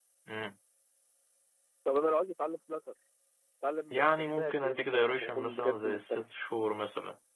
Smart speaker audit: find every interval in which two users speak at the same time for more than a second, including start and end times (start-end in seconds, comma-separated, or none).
3.9-6.2